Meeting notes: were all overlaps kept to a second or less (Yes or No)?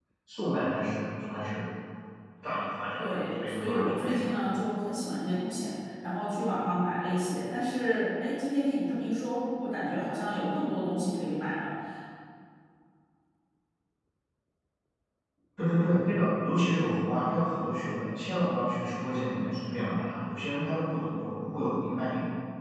No